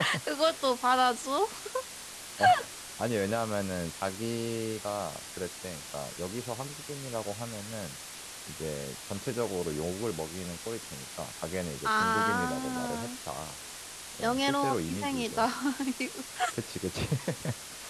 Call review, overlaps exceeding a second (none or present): present